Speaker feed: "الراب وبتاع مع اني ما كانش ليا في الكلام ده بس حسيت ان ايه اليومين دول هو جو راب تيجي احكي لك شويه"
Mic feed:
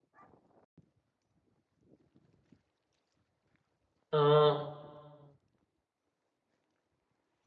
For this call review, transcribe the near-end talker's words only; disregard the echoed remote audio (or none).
آه